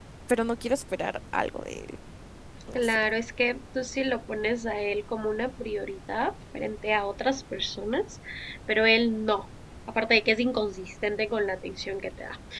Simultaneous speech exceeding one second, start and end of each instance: none

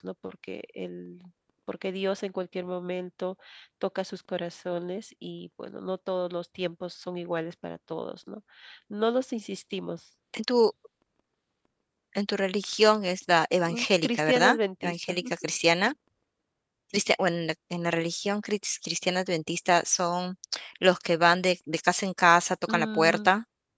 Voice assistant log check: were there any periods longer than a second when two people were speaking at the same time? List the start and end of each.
13.7-15.2

